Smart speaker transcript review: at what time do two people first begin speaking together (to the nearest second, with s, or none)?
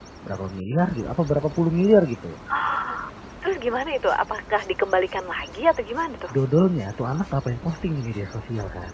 none